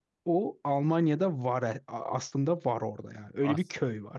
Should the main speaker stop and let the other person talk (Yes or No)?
Yes